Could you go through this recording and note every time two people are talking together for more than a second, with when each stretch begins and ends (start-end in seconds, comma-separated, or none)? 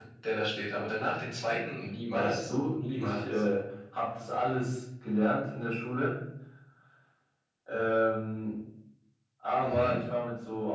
2.1-3.4